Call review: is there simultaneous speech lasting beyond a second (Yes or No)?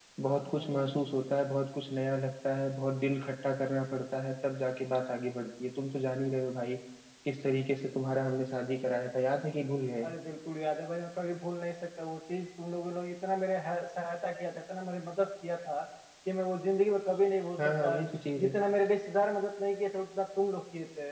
No